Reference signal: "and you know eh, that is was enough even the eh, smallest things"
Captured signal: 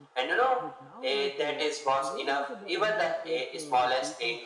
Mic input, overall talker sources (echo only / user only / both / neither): both